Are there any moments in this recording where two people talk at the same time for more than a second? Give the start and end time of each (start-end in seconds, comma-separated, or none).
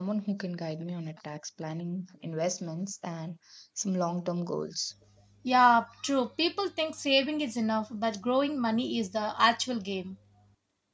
none